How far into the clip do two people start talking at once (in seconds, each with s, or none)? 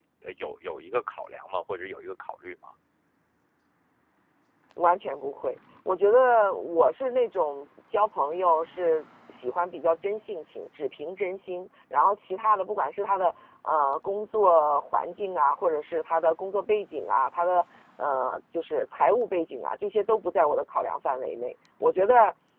none